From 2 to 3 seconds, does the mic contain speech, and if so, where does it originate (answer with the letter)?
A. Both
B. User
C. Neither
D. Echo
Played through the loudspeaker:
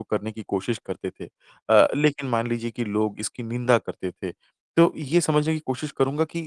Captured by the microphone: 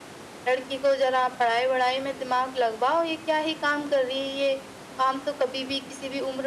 B